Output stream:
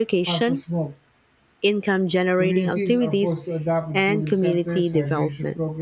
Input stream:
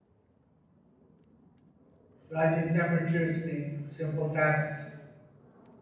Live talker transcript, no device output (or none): Rising temperatures make simple tasks,